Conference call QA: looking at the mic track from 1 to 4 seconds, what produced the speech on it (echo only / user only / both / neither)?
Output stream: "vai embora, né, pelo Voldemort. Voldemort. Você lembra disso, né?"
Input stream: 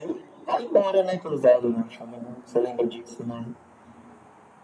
echo only